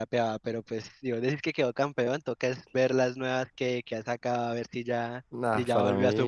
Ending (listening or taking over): taking over